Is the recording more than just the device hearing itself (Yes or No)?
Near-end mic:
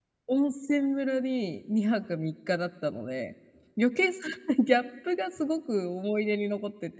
Yes